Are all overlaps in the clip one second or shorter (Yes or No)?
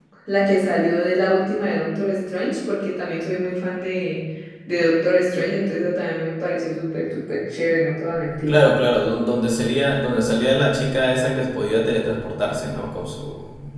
Yes